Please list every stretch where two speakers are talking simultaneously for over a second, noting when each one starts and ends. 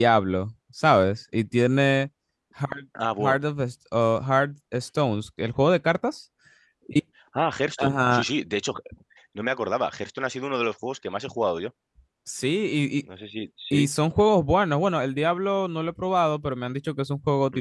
none

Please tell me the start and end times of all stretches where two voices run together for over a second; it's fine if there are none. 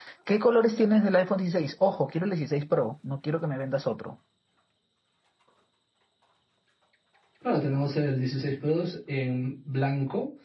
none

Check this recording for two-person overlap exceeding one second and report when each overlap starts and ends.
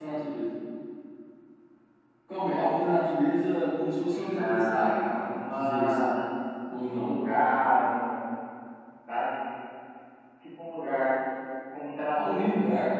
4.1-6.2

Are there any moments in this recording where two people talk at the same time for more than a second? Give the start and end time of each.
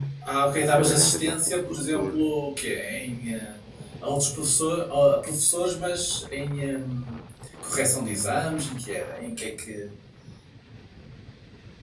0.5-2.1

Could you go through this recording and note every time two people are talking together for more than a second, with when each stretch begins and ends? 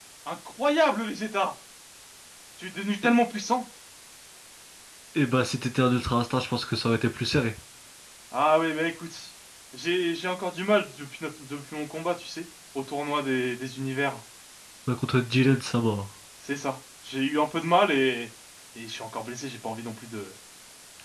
none

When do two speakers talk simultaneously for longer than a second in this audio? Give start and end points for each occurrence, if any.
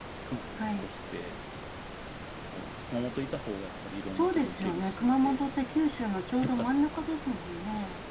4.1-5.4

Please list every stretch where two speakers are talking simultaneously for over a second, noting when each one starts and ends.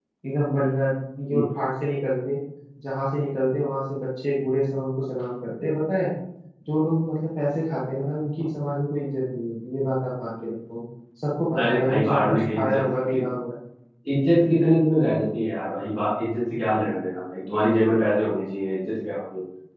11.6-12.8

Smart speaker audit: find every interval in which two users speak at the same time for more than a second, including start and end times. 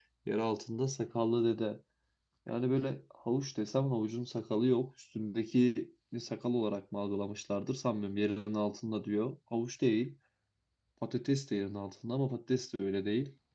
none

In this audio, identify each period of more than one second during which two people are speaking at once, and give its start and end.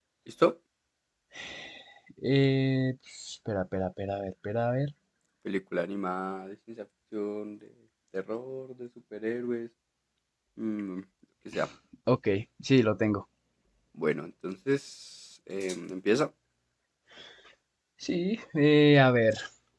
none

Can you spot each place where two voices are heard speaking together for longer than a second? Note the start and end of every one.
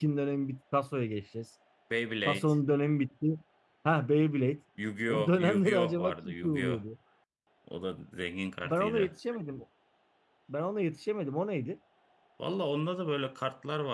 5.1-6.8

